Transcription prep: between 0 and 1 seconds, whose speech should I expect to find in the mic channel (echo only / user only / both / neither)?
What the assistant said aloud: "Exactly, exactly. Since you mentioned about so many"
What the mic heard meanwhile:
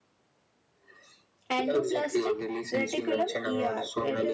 neither